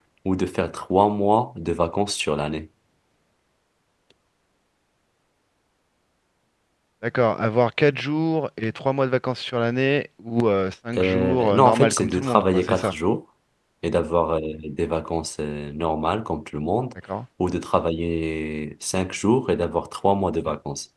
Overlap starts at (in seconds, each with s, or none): 10.9 s